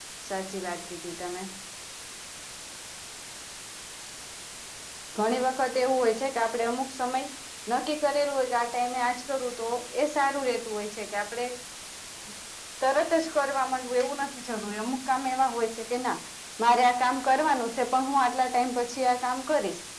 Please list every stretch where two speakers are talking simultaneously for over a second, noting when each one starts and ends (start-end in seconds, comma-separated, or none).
none